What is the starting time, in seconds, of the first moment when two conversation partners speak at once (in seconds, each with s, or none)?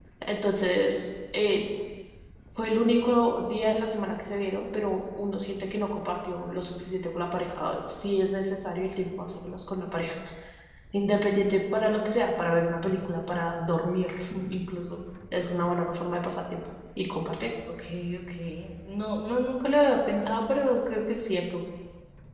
none